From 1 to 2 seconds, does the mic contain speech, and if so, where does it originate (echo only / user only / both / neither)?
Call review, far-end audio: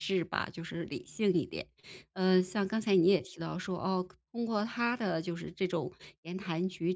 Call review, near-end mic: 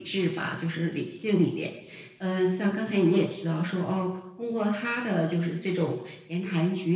echo only